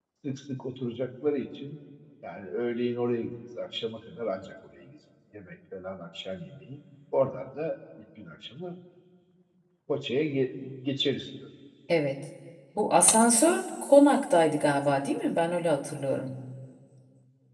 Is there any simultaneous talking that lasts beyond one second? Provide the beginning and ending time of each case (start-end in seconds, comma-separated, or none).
none